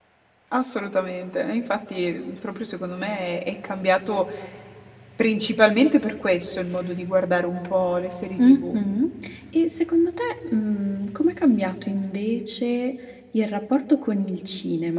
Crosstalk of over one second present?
No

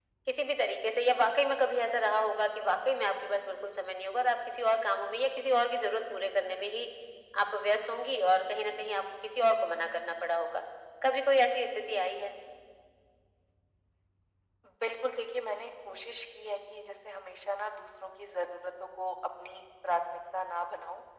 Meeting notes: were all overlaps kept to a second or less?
Yes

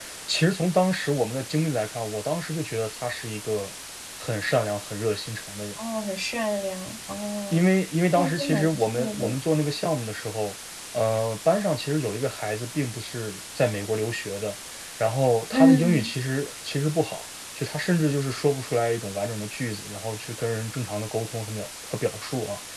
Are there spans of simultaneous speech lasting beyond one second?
Yes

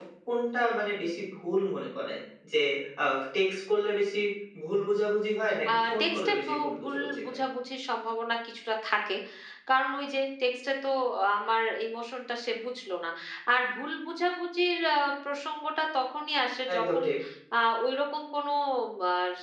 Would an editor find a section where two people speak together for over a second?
Yes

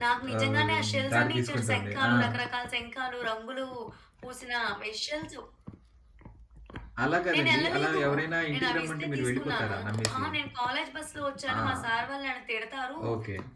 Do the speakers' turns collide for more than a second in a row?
Yes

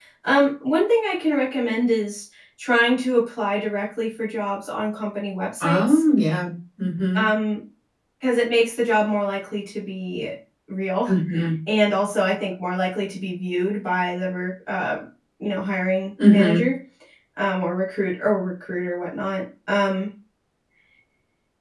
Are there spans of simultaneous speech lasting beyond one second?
No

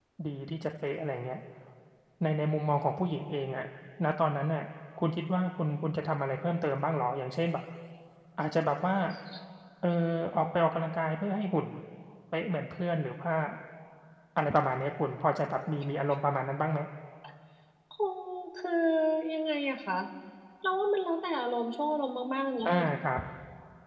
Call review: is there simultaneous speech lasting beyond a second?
No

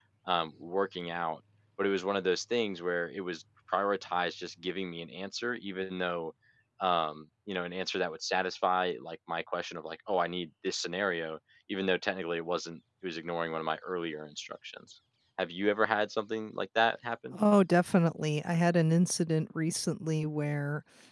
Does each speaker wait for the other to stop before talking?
Yes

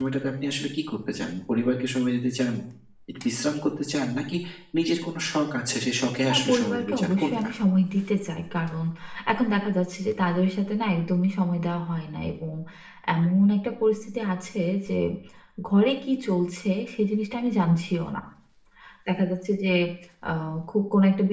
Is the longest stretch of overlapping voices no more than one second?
No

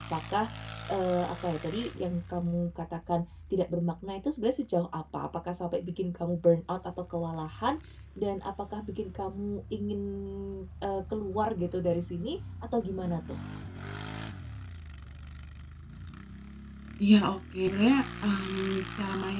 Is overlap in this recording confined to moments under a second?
Yes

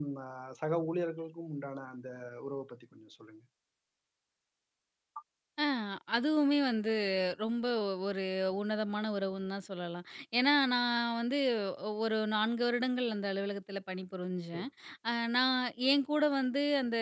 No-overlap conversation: Yes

